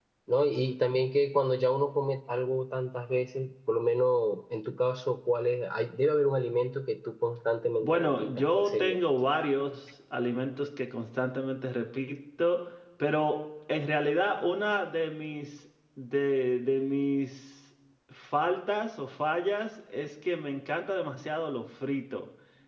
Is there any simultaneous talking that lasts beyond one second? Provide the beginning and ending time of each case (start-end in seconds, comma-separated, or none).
7.8-9.0